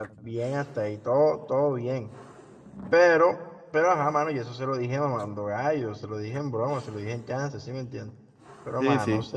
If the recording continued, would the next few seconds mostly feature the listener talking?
No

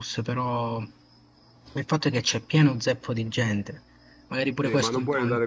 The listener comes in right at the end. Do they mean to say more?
Yes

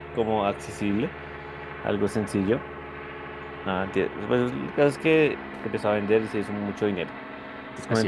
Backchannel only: Yes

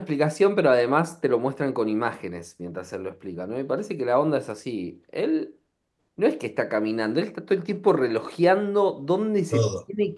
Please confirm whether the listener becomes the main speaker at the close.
No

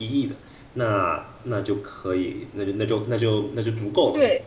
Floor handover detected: Yes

